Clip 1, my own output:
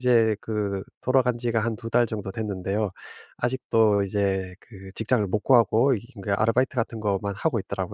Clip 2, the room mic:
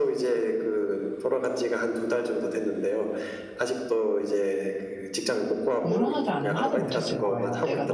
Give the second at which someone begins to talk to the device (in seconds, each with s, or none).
5.8 s